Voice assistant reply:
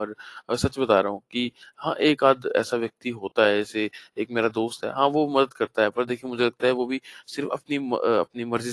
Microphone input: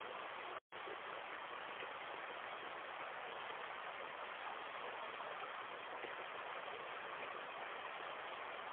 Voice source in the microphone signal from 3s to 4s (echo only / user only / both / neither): neither